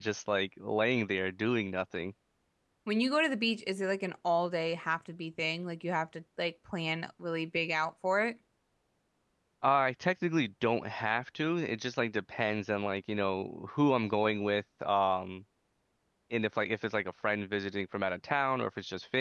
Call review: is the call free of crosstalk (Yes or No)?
Yes